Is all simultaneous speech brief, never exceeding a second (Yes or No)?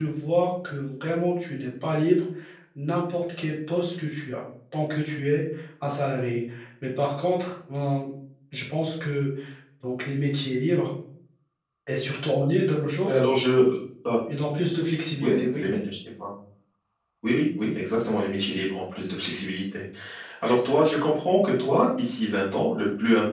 Yes